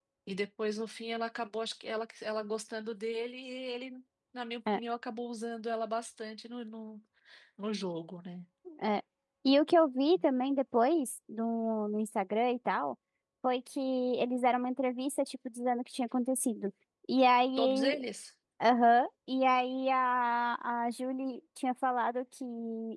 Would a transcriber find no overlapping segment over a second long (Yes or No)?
Yes